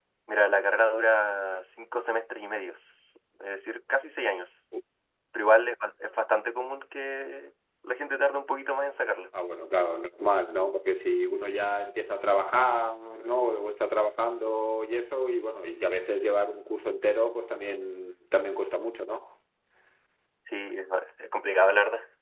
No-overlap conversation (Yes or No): Yes